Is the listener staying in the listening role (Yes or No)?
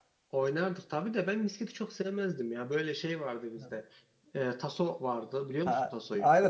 No